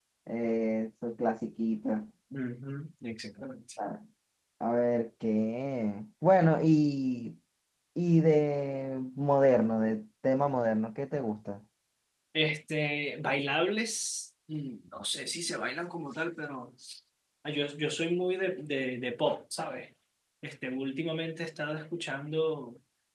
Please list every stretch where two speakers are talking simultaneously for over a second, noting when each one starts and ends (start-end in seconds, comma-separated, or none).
none